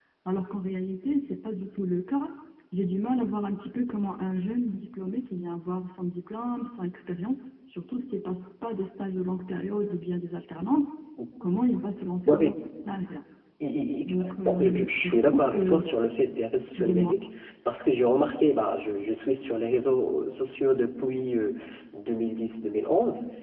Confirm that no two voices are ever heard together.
No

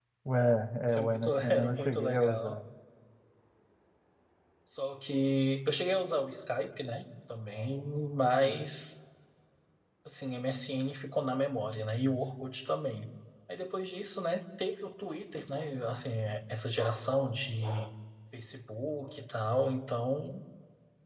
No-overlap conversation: No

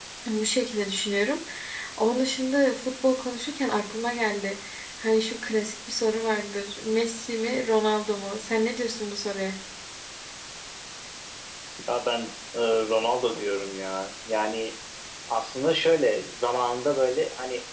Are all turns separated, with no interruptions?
Yes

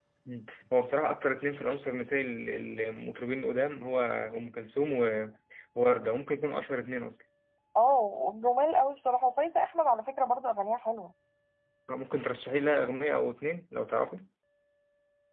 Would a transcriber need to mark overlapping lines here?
No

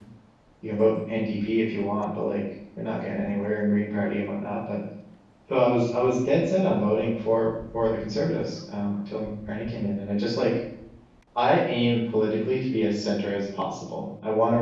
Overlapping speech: No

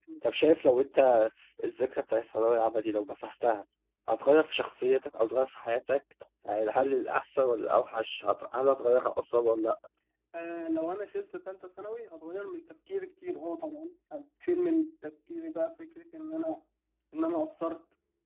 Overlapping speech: No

